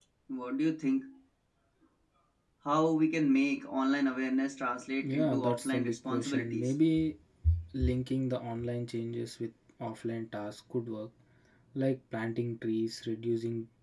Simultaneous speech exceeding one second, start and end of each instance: 5.0-6.7

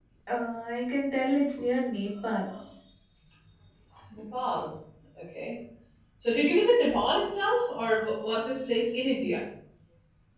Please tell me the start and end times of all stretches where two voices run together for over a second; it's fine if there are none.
none

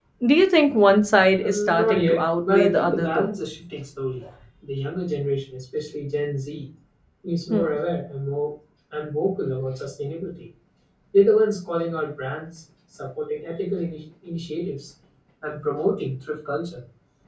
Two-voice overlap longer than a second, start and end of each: 1.4-3.3

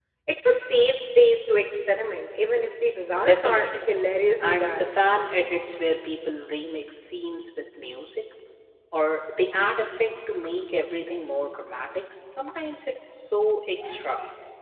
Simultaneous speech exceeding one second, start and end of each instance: none

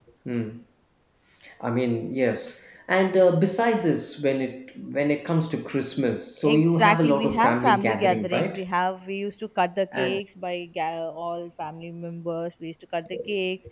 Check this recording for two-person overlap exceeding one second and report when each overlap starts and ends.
6.4-8.6

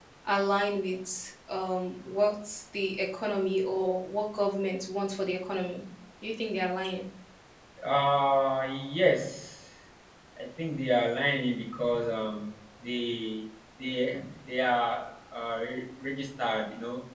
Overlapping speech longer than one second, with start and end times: none

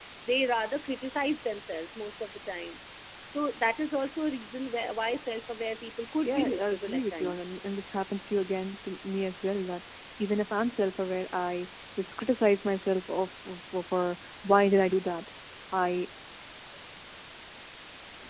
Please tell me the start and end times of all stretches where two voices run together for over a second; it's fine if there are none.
6.2-7.5

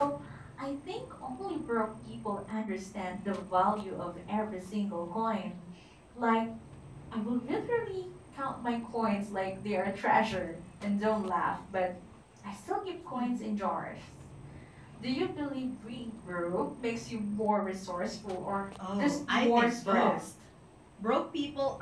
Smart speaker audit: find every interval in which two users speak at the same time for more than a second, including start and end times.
19.0-20.2

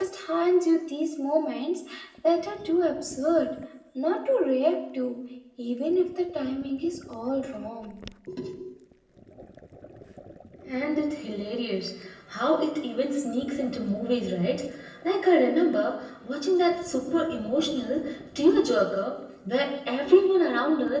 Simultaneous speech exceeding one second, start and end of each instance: none

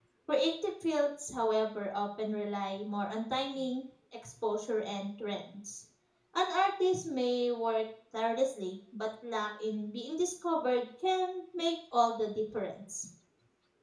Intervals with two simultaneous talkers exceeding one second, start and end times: none

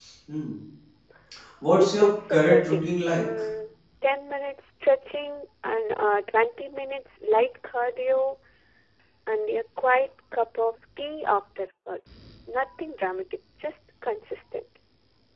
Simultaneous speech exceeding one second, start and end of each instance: 1.8-3.2

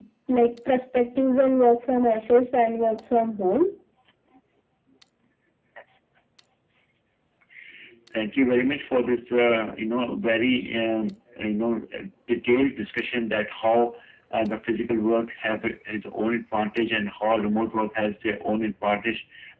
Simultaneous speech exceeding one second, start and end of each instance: none

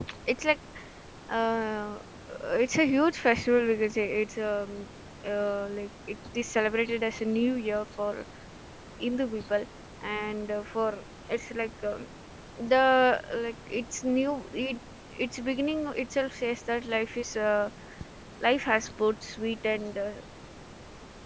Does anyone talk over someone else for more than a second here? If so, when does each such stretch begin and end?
none

